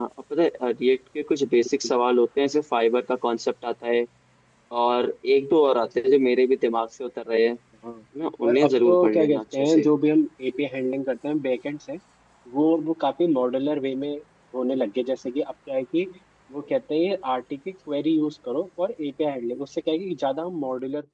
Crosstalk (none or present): present